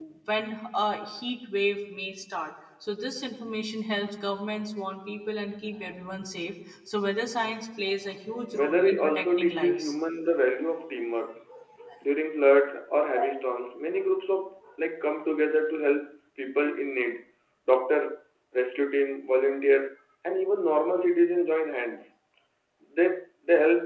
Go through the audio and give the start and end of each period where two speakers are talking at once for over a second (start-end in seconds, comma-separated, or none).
8.5-9.9